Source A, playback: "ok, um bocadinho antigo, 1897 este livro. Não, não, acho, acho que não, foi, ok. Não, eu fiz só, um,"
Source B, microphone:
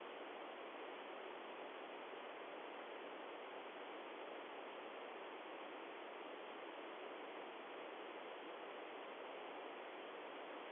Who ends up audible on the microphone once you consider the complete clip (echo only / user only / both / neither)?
neither